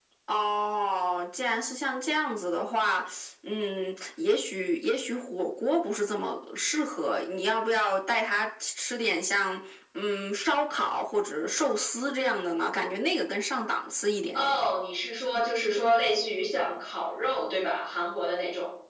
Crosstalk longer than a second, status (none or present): none